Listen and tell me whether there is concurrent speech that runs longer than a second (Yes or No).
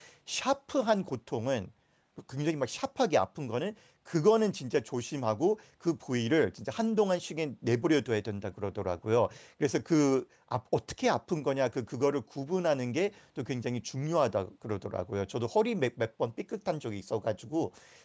No